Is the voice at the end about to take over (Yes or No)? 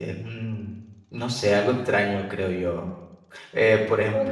No